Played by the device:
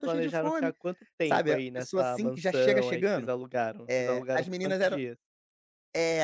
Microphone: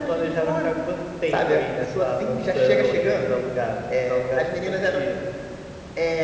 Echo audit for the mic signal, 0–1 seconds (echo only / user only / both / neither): echo only